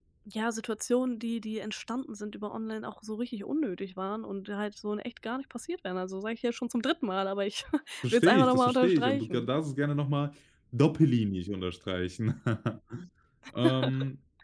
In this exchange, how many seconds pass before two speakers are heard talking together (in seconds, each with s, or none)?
8.1 s